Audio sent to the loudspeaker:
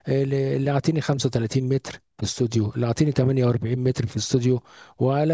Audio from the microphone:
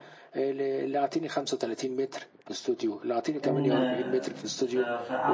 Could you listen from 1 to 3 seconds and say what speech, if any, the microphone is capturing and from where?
echo only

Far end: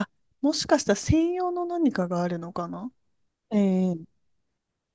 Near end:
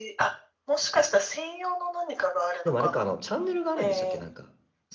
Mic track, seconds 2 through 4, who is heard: both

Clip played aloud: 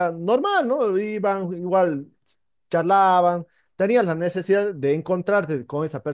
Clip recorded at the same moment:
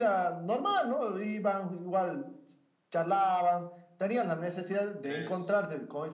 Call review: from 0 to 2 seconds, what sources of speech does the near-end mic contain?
echo only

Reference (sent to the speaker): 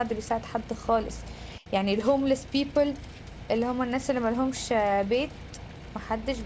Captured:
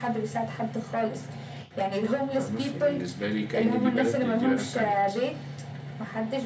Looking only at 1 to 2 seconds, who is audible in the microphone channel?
echo only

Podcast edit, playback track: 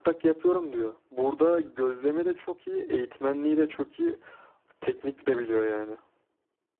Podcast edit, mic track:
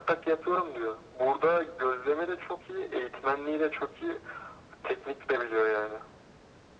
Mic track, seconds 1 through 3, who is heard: echo only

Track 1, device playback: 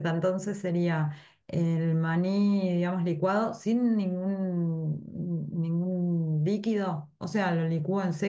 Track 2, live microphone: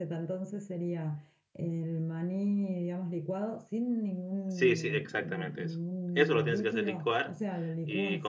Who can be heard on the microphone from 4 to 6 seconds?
both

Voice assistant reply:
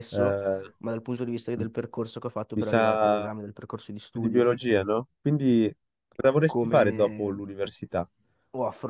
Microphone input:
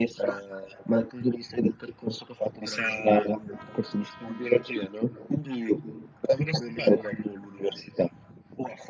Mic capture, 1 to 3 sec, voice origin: echo only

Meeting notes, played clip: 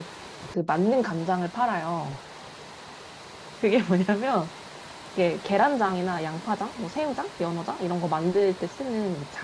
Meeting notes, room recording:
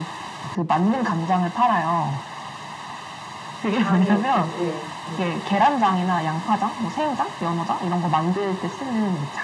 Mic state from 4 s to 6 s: both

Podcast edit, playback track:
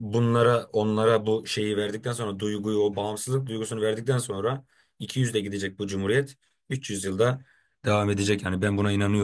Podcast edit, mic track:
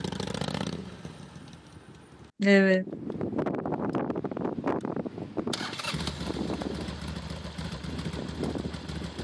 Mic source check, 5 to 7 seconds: neither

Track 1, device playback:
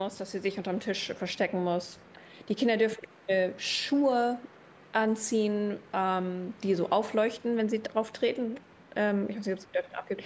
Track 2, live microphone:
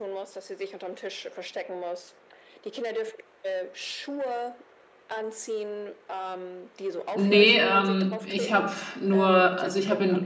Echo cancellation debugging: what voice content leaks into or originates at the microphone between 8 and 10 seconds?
both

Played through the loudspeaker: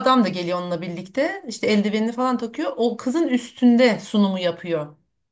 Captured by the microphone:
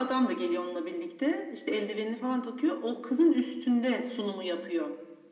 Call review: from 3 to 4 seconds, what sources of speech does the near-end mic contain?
echo only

